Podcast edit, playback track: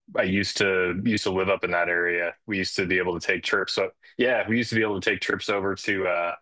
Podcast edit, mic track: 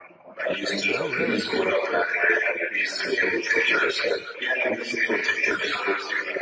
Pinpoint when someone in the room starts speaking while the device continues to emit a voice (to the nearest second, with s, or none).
1 s